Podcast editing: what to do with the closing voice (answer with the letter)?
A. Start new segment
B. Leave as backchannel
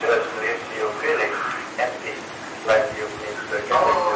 A